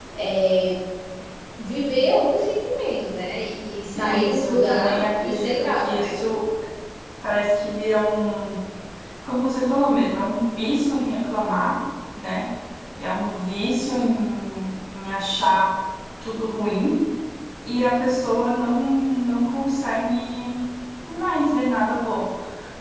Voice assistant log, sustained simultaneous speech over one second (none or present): present